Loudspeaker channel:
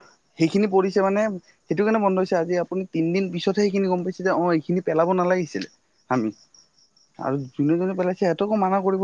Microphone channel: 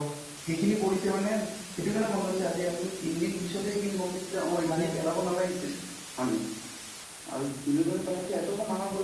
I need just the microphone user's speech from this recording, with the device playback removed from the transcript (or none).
এ মানে